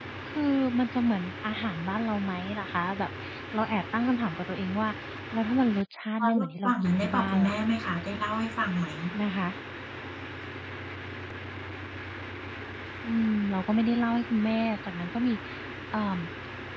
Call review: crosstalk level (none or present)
present